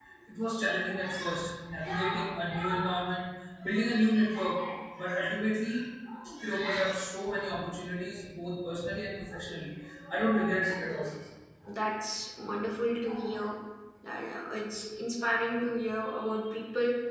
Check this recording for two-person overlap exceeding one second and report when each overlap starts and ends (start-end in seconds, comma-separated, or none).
none